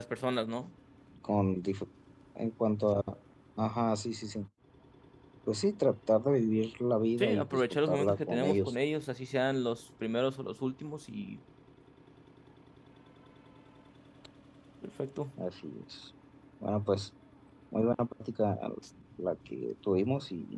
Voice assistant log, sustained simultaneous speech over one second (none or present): present